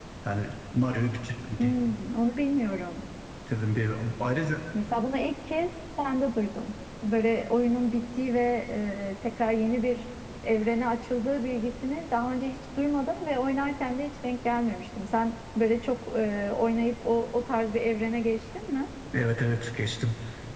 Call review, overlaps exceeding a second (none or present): none